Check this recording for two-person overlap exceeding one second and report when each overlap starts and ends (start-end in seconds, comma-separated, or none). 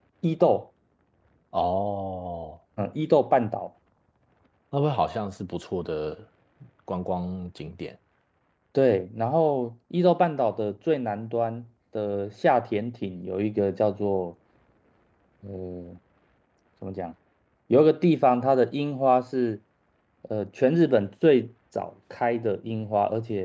none